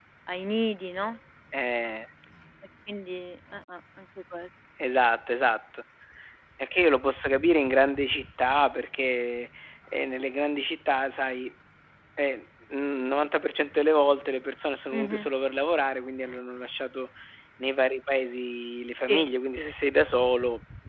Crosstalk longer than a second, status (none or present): none